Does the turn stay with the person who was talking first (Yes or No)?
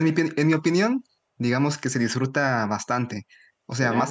Yes